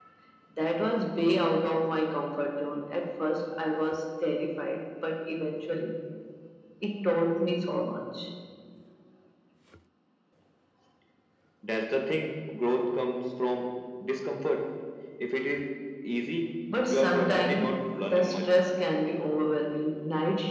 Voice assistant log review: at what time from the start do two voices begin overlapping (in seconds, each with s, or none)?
16.9 s